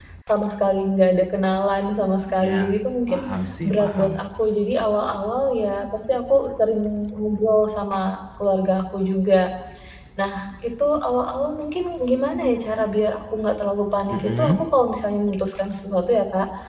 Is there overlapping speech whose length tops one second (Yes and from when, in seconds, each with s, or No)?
No